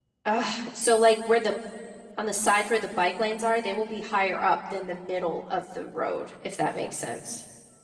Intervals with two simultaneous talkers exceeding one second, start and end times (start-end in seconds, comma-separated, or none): none